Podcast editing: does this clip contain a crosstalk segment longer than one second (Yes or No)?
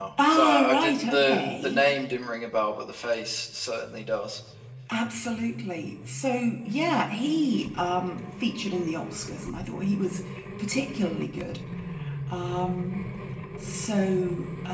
Yes